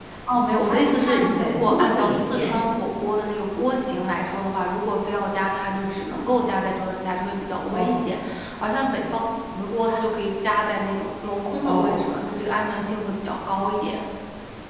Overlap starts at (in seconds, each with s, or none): 0.6 s